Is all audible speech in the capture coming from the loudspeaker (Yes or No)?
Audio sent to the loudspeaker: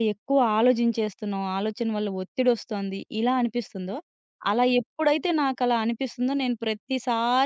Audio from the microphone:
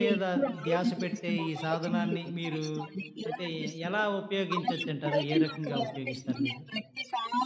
No